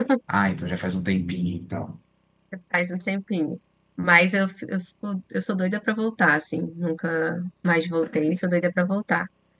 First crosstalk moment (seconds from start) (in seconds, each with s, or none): none